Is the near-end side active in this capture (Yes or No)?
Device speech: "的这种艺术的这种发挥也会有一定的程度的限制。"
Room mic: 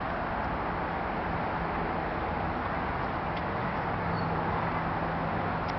No